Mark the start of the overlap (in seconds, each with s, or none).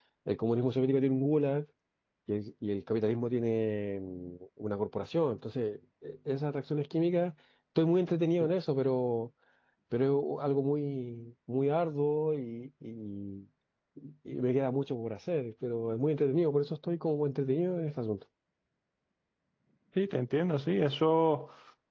none